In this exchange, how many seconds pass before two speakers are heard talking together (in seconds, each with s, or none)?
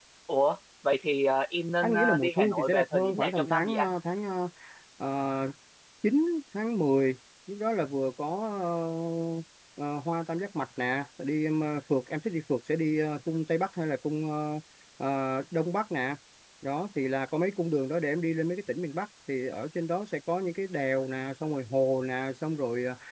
1.8 s